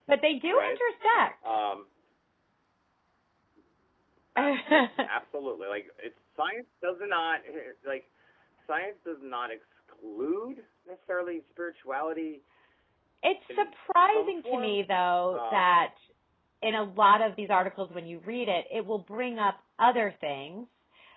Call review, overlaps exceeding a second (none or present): present